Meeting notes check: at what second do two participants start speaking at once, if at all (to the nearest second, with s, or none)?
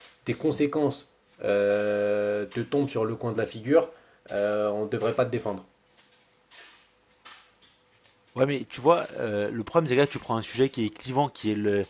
none